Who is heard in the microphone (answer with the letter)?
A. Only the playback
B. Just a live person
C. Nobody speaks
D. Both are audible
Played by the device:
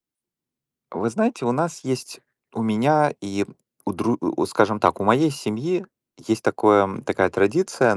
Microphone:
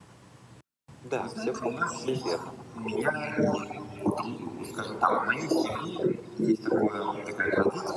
D